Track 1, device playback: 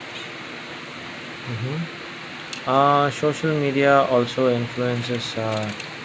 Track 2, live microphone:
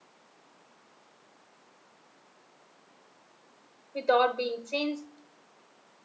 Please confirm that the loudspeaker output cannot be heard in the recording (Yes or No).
Yes